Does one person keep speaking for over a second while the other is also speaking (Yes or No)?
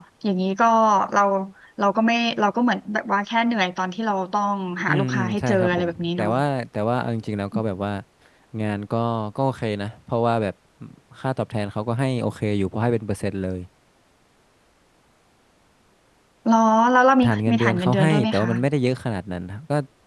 Yes